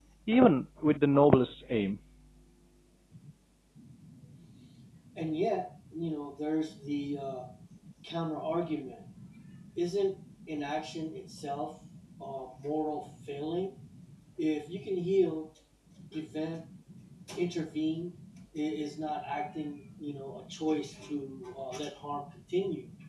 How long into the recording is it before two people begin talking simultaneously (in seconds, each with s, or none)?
none